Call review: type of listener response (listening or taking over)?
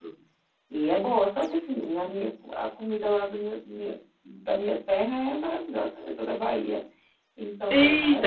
taking over